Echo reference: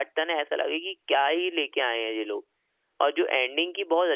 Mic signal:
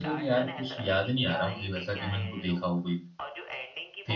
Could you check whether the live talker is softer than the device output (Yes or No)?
No